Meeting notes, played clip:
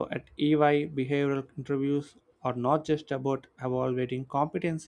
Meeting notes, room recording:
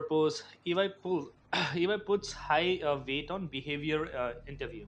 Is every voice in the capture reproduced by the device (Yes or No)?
No